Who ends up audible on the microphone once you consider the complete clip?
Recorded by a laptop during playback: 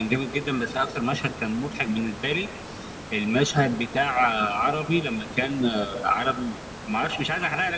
echo only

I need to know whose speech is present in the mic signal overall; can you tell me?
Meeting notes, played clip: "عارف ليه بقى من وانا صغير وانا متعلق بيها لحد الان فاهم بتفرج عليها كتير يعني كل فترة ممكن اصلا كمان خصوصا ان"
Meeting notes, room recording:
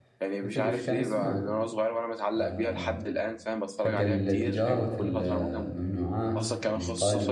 both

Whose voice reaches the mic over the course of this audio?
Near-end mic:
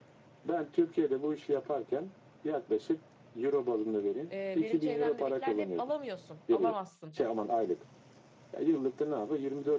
both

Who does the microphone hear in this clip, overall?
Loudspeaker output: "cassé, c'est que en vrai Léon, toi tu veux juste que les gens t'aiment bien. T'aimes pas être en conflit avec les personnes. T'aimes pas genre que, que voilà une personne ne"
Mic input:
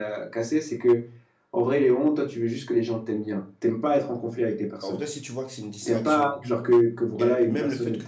both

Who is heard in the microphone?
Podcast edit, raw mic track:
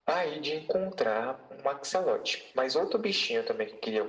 echo only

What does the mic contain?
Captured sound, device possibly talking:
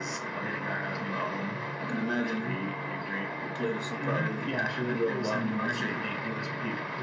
echo only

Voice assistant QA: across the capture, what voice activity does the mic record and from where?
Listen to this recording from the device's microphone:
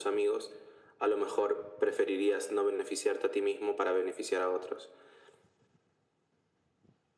echo only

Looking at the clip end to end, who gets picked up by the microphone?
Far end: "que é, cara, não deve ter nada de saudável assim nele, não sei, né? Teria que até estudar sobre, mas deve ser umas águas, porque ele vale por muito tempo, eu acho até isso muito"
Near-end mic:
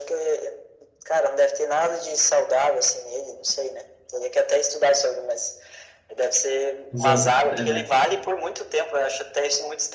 both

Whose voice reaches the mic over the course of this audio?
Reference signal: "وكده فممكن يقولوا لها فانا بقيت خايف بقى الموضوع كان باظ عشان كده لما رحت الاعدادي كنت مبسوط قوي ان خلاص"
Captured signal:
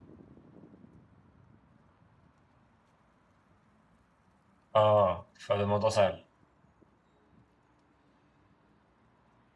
user only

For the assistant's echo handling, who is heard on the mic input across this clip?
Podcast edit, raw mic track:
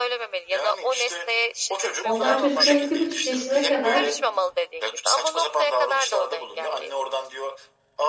both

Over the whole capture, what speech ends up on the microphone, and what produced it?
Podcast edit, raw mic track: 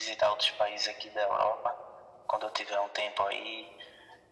echo only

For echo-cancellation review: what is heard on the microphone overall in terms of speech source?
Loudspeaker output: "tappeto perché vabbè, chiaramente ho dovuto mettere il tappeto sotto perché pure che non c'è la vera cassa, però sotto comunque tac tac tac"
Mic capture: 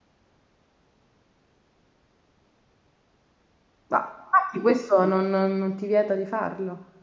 user only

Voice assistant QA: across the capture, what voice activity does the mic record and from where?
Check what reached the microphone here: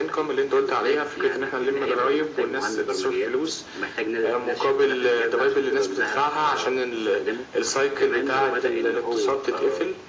echo only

